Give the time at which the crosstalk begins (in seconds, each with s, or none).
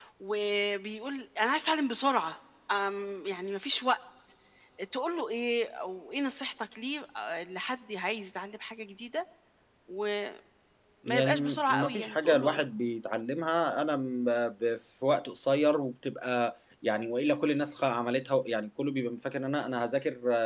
11.1 s